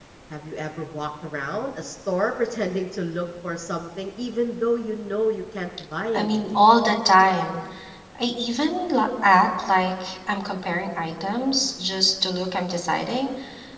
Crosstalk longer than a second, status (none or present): none